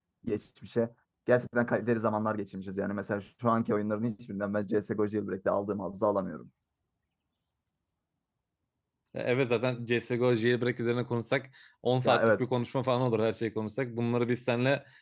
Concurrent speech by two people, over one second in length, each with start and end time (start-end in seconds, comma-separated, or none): none